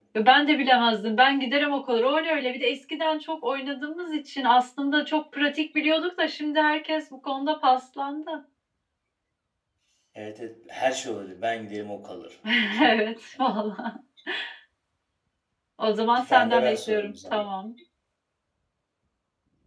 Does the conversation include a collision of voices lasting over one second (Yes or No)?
Yes